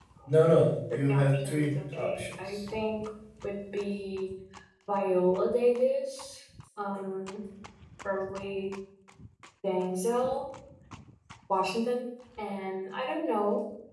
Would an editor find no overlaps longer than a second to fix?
No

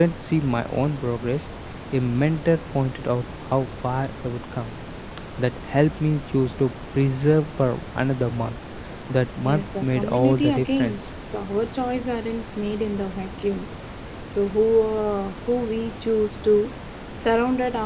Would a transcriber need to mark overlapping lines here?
Yes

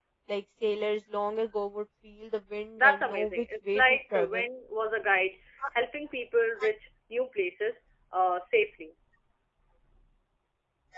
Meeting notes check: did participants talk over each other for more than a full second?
Yes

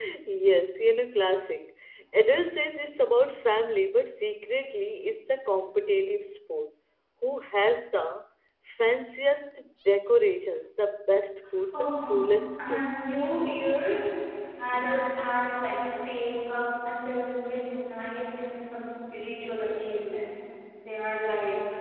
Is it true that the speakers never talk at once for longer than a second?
Yes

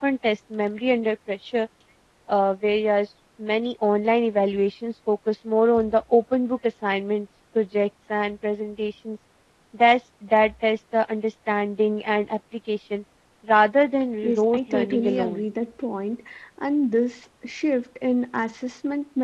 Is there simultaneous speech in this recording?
Yes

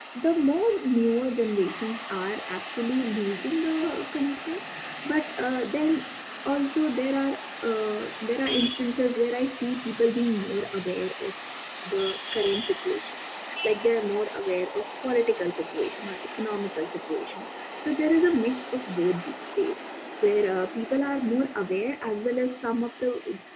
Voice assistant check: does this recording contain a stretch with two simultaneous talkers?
No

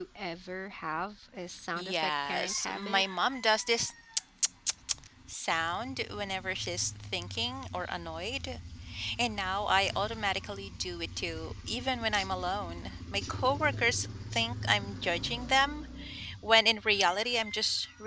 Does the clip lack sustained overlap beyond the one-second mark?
No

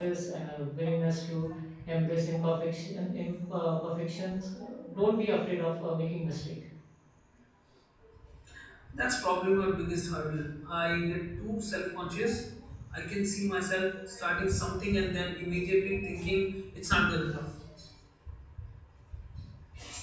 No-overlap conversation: Yes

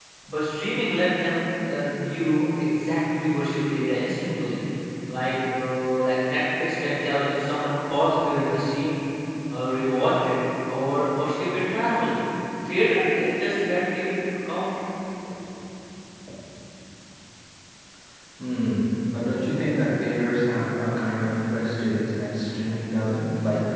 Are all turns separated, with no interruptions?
Yes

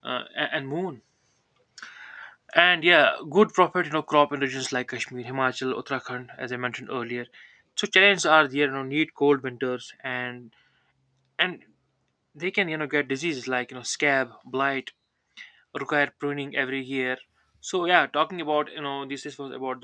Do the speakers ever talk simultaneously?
No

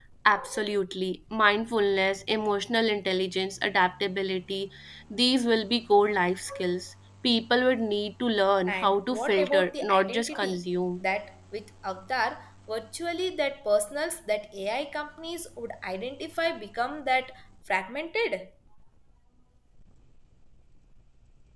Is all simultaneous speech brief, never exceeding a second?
No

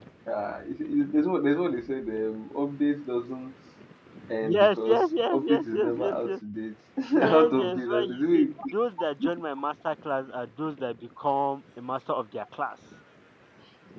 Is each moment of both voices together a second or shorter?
No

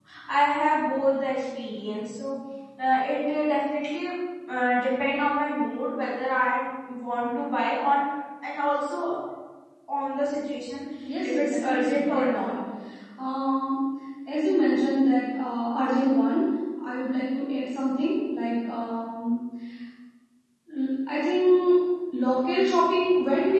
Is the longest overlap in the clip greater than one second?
Yes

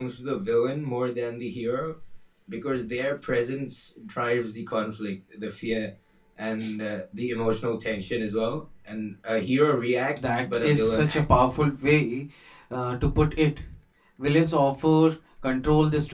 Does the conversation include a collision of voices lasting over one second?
Yes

